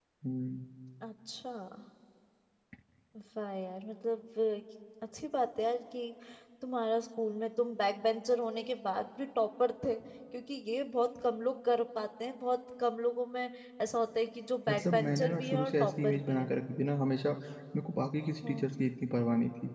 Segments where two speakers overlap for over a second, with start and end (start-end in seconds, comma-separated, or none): 14.7-16.5